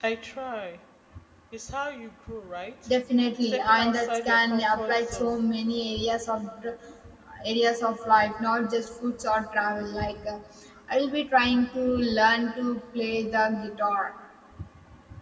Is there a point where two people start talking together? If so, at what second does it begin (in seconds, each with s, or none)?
3.4 s